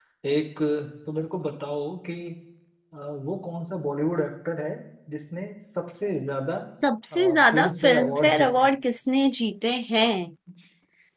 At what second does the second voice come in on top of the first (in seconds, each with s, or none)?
7.1 s